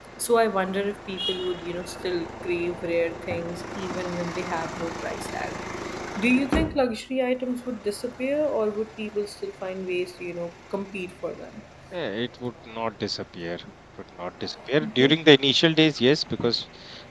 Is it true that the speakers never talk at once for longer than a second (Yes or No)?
Yes